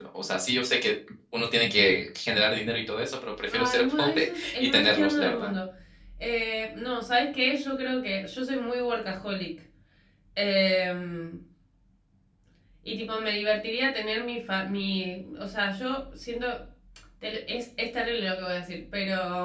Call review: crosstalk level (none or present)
present